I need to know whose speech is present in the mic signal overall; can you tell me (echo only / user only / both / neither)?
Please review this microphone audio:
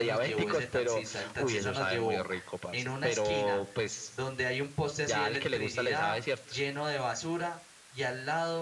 both